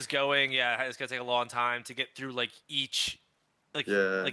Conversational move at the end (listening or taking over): listening